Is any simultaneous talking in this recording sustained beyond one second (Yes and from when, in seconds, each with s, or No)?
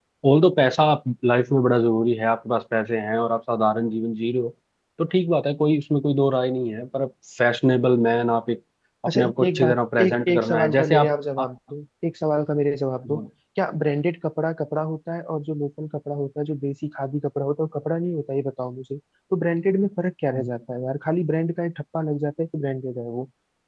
Yes, from 9.1 s